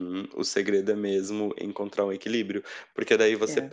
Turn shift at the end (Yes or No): No